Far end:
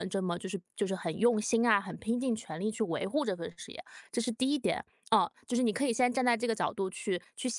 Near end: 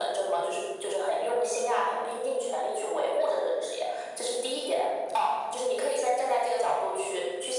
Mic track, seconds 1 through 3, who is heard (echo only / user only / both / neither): echo only